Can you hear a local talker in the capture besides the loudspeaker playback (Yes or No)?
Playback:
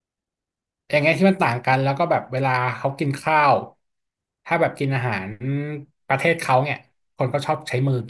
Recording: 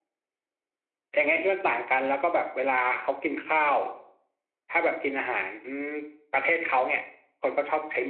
No